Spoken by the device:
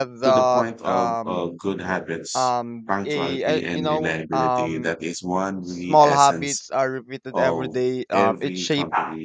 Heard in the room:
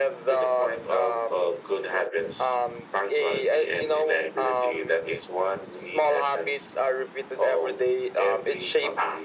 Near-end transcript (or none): none